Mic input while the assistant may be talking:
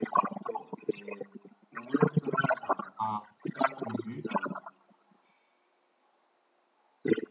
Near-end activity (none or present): present